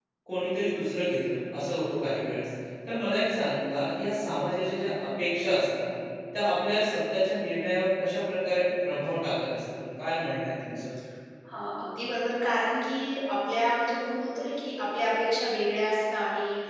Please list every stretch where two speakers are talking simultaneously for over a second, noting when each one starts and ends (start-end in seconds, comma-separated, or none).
none